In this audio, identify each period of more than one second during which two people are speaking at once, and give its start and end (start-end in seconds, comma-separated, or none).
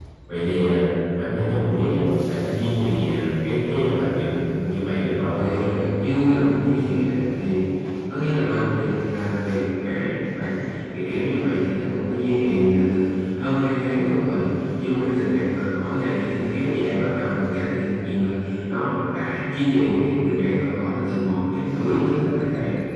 none